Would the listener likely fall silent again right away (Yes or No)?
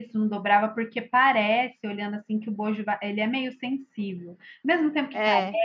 Yes